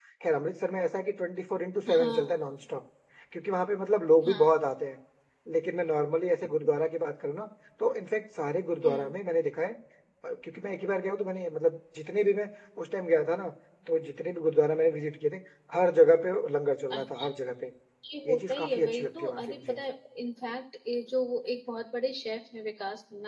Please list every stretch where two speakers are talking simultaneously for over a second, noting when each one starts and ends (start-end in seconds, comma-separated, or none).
18.3-19.8